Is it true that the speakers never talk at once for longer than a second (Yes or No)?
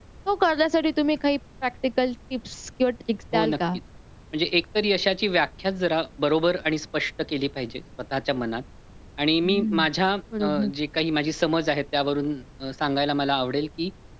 Yes